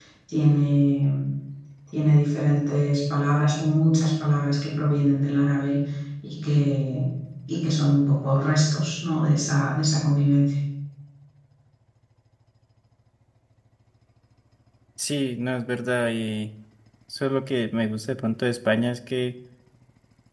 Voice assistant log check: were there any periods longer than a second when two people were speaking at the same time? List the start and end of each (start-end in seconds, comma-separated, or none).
none